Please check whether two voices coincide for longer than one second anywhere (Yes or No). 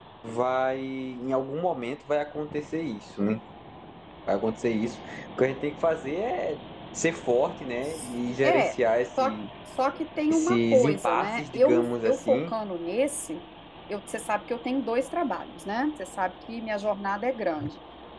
Yes